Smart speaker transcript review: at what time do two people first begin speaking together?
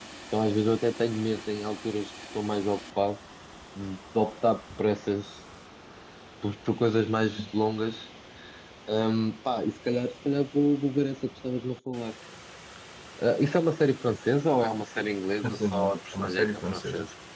15.4 s

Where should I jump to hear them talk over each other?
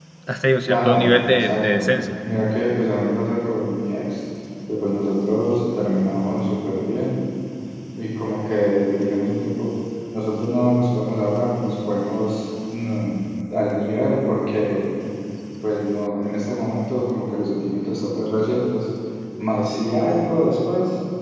0.7 s

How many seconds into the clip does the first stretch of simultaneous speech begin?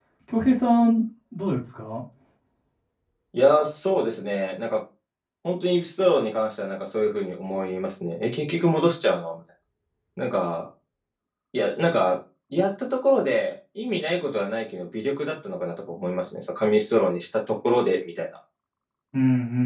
none

